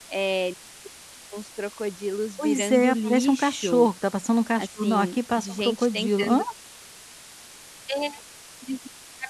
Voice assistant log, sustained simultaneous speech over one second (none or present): present